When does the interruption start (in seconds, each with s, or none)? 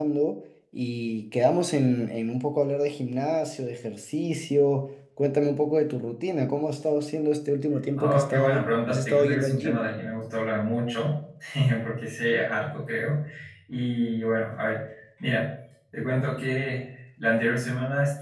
8.0 s